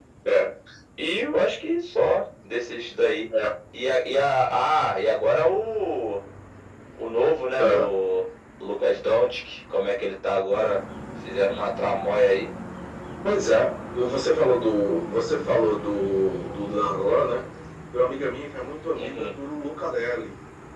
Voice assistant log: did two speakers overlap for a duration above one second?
No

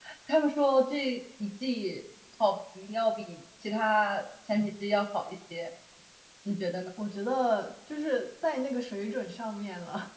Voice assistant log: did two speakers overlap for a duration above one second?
No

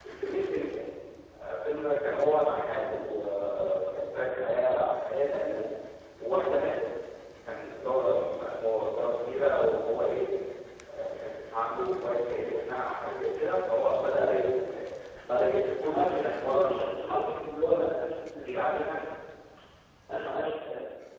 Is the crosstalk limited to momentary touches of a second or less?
No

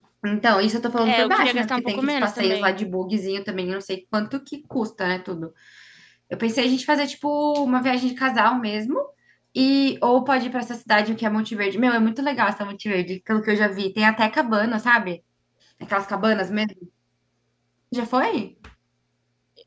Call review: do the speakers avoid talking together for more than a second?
No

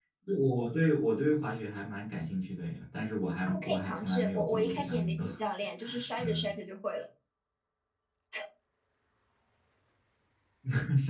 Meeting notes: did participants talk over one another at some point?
Yes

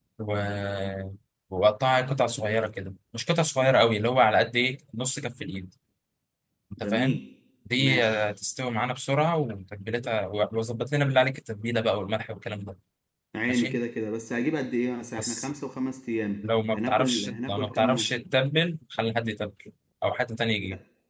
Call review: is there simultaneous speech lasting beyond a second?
Yes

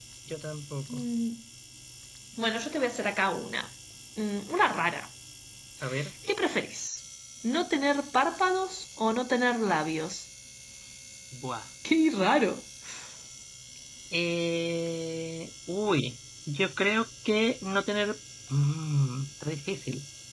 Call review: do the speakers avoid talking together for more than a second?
Yes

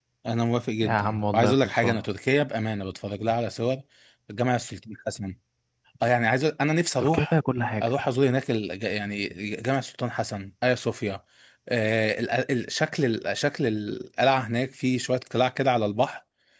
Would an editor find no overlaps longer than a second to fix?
No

